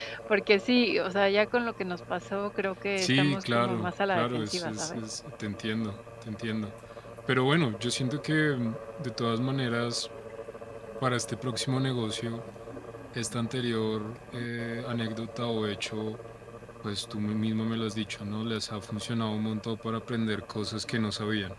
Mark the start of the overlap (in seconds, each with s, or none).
3.0 s